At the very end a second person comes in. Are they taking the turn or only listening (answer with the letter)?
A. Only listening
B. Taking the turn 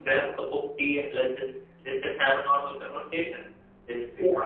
A